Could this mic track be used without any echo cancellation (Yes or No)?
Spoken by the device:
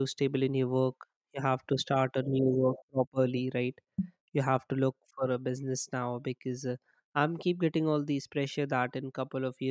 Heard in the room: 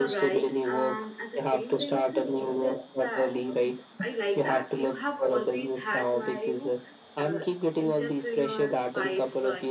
No